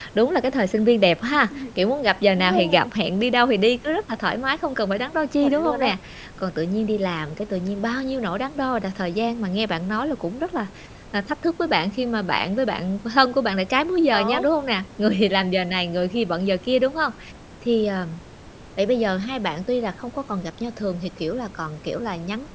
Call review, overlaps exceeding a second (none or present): none